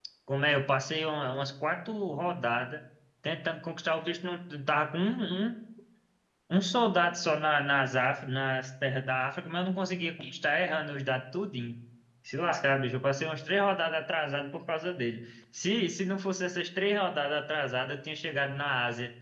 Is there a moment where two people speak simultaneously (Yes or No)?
No